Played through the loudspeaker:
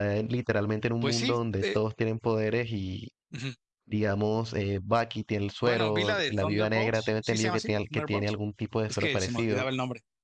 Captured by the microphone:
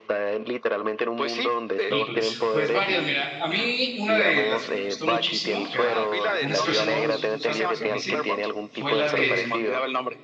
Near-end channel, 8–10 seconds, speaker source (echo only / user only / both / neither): both